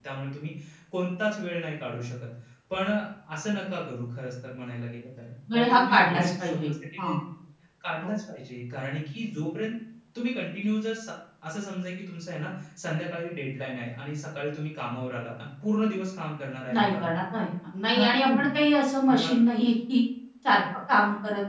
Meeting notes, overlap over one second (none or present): present